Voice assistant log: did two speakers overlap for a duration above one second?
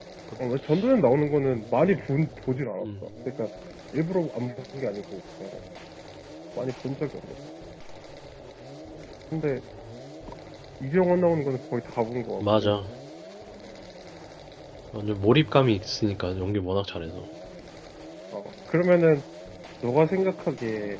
No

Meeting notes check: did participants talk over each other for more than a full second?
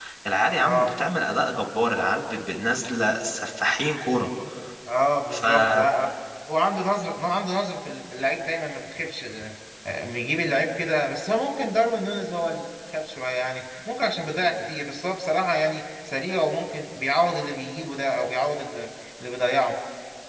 No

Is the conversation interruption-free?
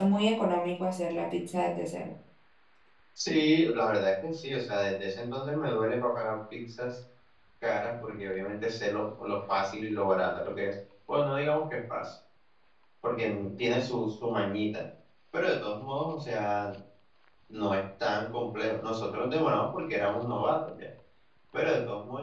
Yes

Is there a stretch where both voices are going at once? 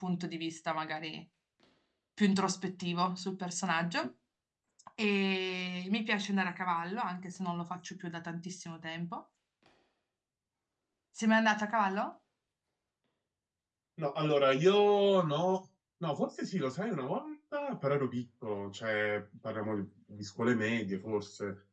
No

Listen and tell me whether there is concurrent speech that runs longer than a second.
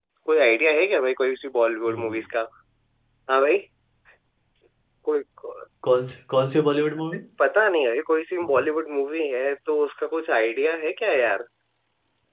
No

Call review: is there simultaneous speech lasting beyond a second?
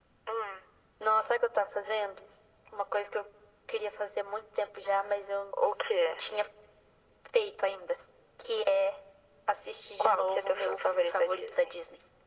Yes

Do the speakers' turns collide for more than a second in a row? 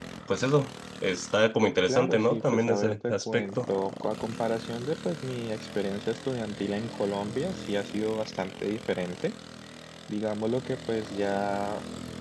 Yes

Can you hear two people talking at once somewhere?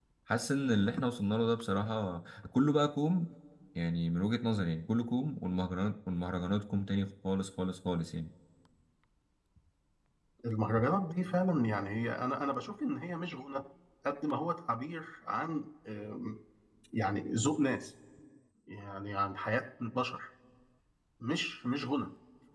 No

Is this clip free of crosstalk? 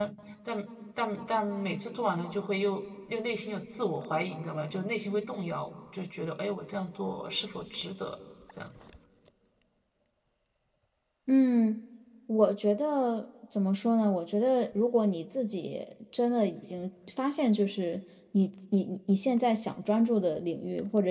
Yes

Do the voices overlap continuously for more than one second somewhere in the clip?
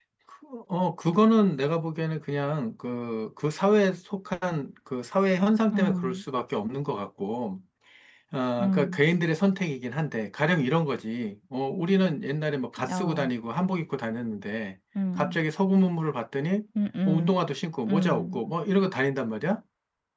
No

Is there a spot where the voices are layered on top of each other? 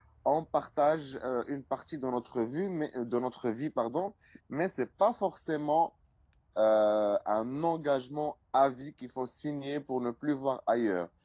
No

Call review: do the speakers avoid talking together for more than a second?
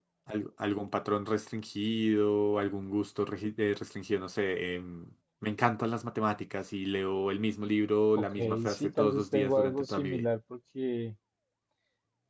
No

